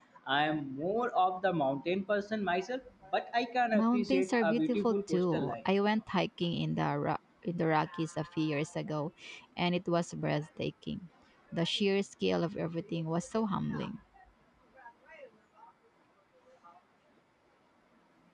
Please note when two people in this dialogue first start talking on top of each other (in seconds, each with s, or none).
3.7 s